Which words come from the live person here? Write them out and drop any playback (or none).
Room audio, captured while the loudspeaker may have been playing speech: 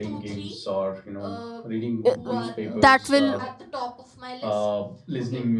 uh, uh, that will